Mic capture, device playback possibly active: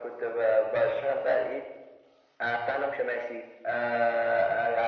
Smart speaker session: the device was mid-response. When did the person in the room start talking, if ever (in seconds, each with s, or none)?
none